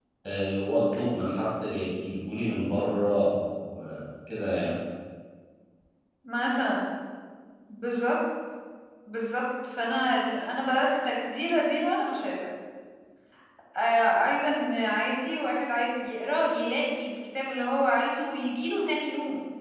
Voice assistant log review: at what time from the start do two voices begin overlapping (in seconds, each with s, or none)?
none